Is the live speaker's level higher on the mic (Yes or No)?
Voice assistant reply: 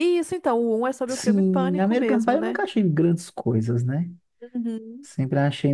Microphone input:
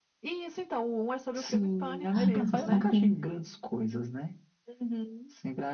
Yes